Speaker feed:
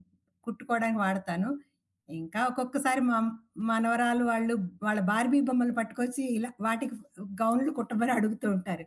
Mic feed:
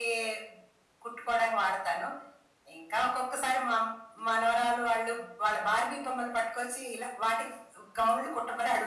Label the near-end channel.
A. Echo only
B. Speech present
A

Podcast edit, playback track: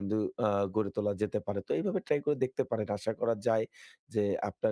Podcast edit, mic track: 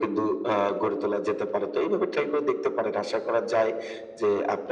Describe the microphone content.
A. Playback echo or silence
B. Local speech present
A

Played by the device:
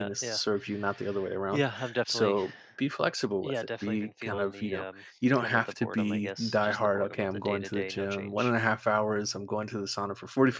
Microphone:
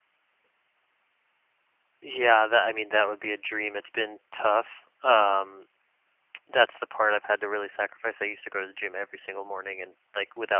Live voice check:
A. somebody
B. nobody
A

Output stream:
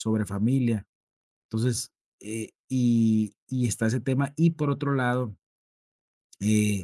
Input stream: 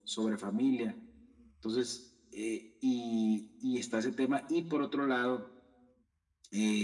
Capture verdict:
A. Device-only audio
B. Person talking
A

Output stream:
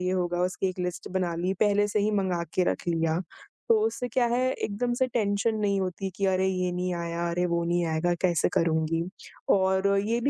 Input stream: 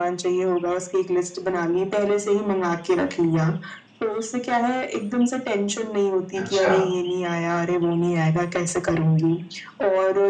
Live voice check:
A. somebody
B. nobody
A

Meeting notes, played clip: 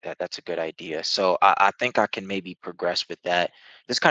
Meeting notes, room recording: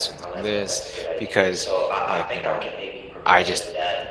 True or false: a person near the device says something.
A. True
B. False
A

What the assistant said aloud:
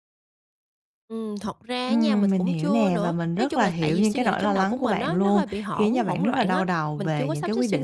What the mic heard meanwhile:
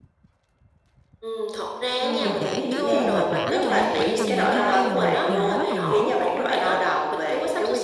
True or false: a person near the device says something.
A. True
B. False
A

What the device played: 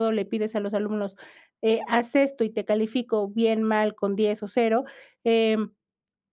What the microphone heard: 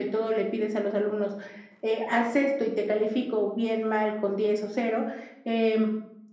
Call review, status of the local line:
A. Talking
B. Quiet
B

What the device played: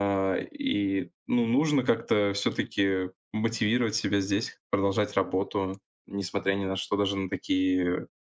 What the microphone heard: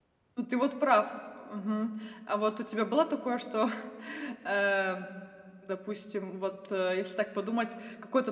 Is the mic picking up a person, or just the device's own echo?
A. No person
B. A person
B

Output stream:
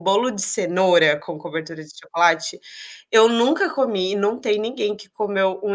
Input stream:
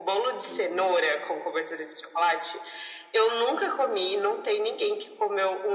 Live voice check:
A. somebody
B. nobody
A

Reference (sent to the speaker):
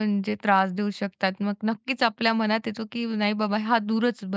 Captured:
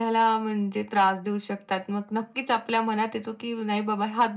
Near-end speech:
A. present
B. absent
B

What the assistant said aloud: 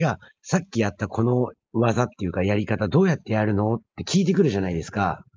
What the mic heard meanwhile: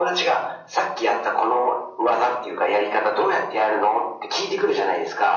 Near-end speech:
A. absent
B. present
A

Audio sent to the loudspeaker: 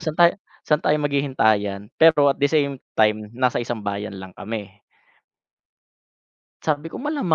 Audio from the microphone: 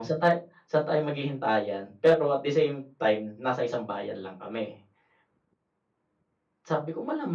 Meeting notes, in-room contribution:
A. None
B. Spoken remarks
A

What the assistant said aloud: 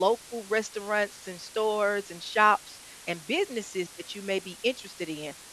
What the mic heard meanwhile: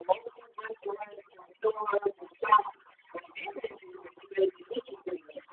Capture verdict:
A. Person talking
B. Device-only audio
B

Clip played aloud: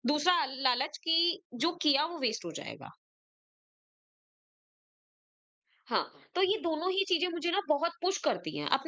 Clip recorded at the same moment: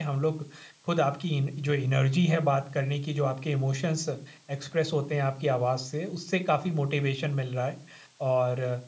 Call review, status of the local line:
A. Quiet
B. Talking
B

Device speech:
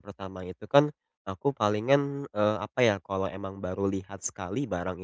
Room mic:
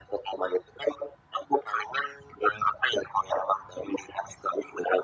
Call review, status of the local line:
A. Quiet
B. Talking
A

